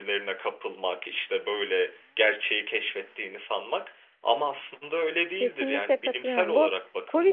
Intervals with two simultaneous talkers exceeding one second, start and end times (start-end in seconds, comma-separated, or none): 5.4-6.7